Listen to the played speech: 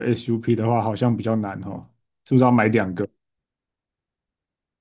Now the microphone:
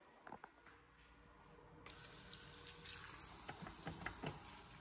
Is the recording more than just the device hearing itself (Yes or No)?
No